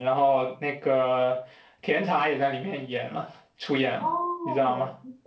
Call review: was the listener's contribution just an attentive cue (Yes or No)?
No